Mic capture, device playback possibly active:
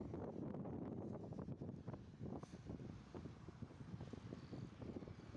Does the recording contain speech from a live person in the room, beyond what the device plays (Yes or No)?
No